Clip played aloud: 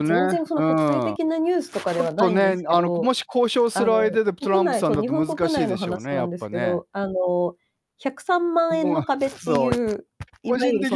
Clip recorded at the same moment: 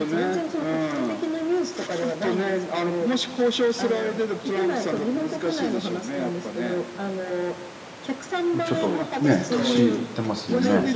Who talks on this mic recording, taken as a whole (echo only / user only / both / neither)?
both